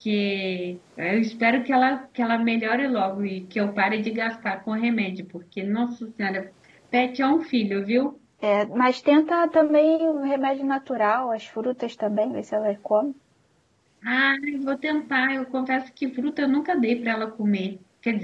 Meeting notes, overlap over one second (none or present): none